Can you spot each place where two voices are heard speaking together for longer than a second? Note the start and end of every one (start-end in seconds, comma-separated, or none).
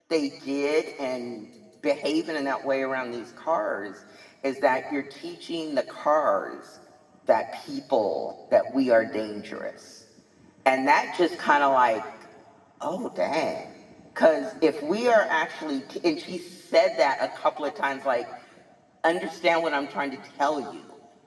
none